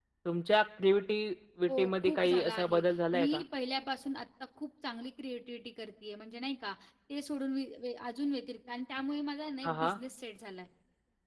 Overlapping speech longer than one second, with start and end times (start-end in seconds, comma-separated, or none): 1.7-3.4